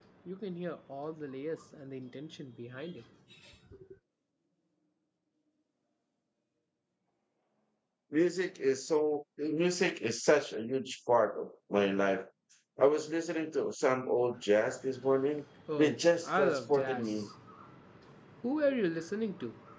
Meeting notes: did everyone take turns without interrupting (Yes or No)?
No